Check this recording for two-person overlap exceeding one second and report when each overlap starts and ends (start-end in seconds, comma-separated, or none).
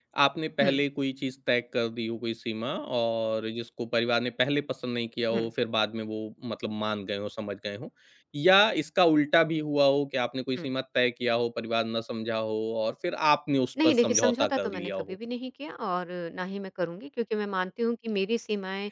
13.8-15.2